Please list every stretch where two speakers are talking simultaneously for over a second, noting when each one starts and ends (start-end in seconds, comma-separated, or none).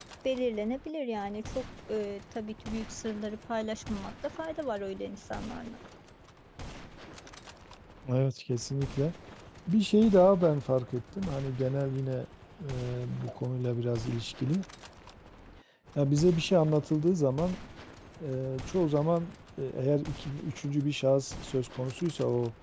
none